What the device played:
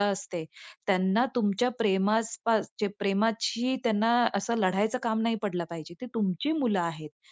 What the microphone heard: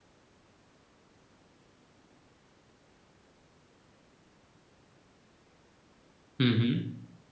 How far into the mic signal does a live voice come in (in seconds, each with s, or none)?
6.4 s